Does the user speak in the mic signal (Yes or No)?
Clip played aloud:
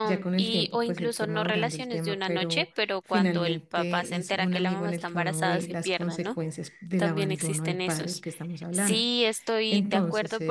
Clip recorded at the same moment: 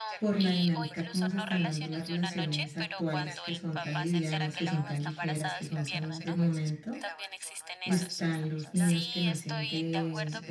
Yes